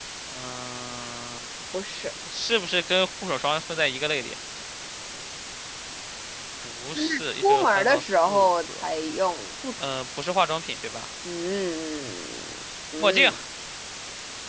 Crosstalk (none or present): present